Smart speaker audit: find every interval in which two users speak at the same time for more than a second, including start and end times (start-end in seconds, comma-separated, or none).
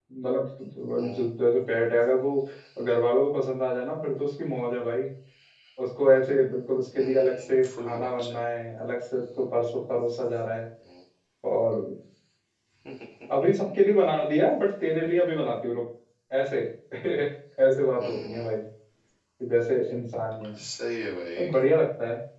7.0-8.3